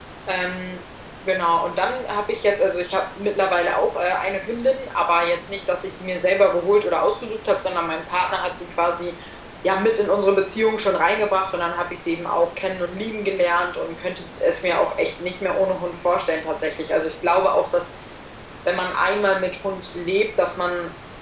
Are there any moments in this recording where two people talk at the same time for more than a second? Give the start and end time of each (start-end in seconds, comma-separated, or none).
none